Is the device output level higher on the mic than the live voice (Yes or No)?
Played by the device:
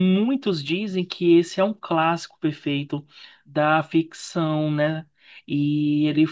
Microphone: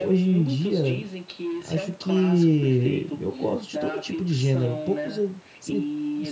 No